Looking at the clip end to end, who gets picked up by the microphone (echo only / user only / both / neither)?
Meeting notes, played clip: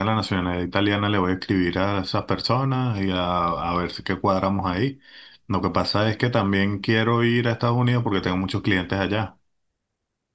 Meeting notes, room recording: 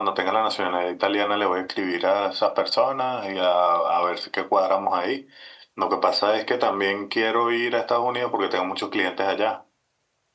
echo only